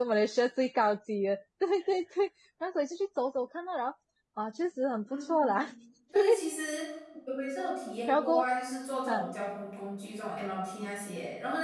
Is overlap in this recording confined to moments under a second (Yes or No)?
Yes